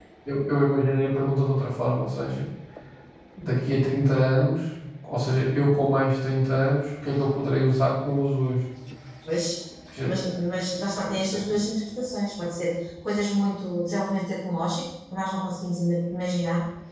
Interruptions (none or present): none